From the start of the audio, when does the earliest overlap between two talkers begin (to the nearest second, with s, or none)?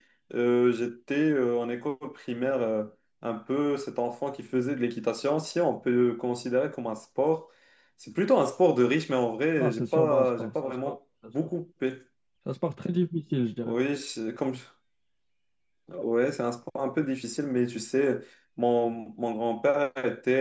10 s